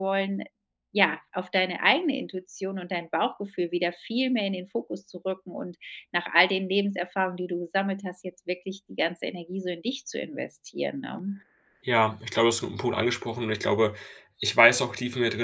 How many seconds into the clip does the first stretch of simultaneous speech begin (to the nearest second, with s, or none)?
none